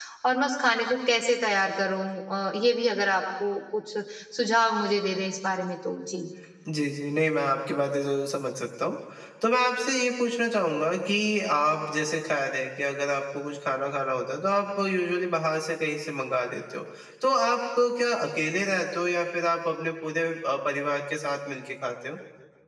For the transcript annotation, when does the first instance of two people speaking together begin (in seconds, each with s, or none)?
none